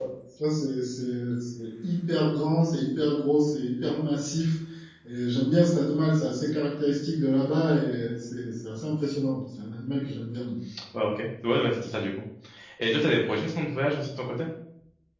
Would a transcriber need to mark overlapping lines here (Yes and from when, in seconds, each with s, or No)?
No